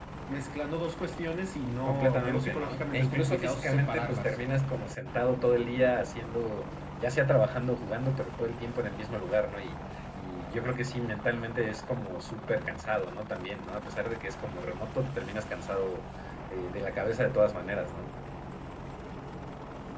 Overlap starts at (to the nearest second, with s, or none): 2 s